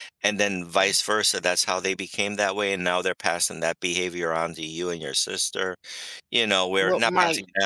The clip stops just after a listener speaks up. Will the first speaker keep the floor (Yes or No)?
Yes